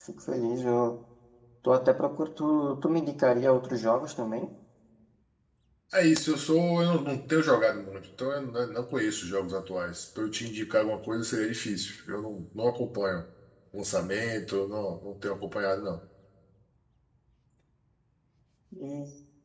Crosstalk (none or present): none